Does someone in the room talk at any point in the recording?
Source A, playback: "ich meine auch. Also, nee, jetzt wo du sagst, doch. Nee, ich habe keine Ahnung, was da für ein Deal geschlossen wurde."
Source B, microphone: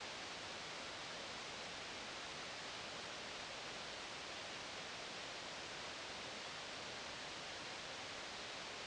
No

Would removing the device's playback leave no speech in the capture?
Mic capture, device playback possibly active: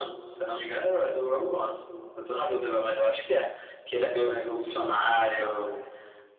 Yes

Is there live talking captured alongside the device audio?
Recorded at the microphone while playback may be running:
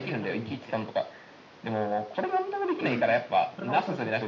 Yes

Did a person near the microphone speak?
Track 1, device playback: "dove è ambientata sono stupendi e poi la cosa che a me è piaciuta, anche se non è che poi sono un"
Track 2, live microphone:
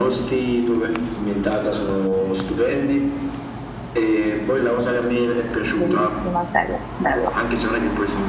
Yes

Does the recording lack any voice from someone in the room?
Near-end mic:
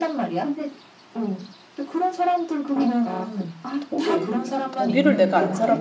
No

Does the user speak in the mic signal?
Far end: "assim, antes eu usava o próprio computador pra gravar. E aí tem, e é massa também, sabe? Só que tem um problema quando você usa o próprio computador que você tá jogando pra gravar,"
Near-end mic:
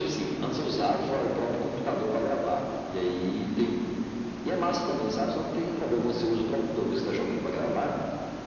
No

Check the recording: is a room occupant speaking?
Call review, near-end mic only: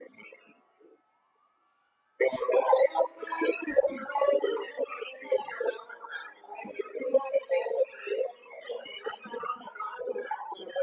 No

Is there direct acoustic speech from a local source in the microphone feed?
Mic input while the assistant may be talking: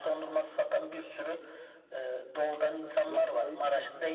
Yes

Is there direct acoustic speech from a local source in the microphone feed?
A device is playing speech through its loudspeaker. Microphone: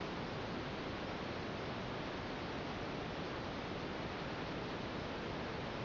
No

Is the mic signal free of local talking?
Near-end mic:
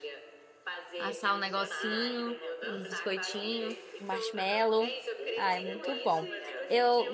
No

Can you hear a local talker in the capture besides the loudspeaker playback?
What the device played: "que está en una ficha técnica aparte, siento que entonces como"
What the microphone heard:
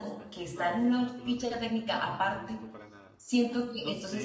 Yes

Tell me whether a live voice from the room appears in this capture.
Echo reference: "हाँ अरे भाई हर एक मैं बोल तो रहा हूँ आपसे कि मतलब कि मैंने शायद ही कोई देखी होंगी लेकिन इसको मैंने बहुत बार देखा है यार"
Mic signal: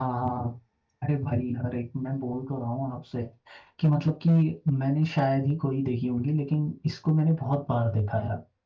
No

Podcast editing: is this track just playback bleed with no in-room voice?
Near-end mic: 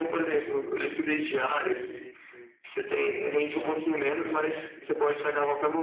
No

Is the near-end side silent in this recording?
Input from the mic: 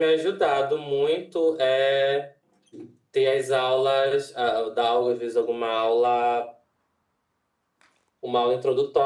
Yes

